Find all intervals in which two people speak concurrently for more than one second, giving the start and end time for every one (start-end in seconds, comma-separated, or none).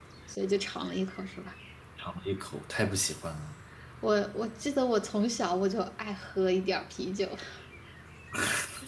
none